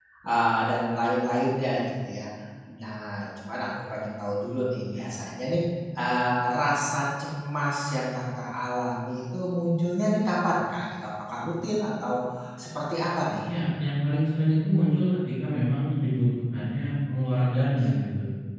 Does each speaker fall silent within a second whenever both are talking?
Yes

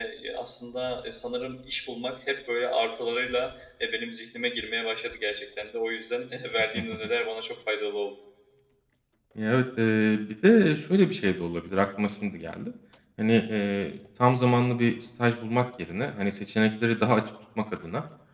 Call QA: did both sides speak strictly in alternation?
Yes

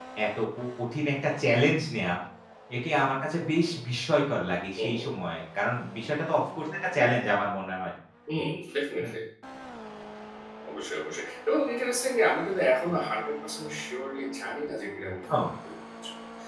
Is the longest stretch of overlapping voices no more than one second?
Yes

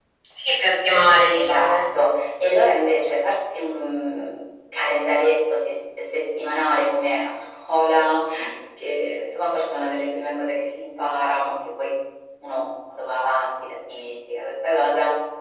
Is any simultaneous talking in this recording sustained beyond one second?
No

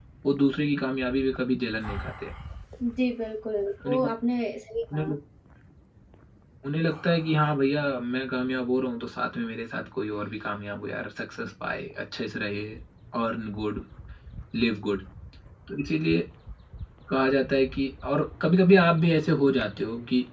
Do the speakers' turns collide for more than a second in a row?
No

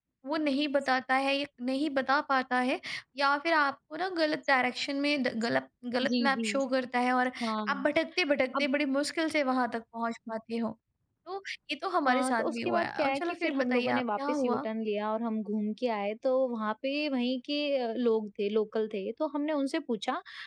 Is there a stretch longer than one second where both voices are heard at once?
Yes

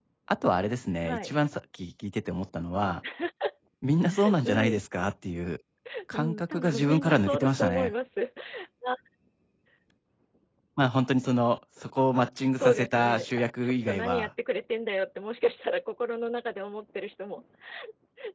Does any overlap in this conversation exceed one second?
Yes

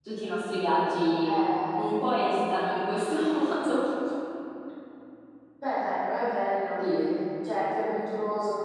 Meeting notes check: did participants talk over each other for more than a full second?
No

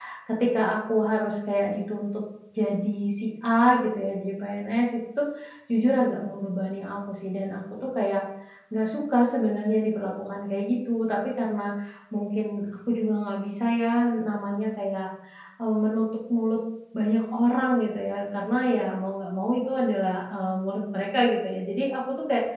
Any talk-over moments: No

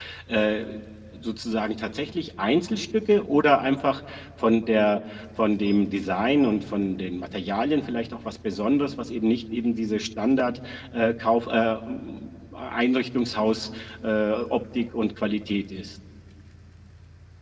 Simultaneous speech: No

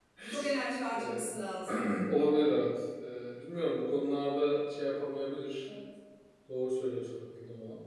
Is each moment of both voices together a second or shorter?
Yes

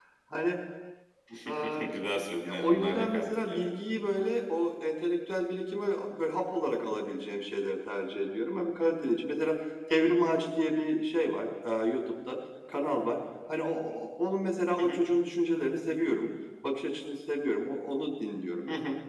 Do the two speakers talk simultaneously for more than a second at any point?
Yes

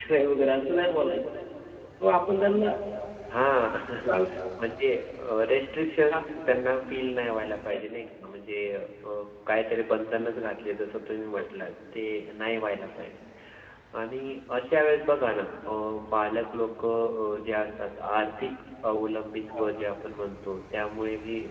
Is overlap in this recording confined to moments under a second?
Yes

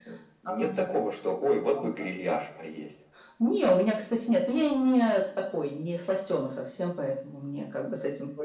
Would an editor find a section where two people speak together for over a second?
No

